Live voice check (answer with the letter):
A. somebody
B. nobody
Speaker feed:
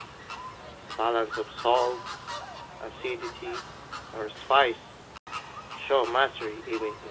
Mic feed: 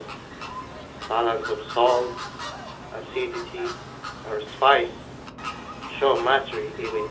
B